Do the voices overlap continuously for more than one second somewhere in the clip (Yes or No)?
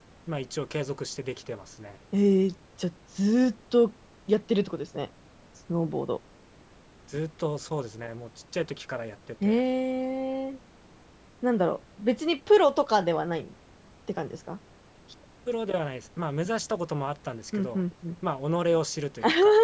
No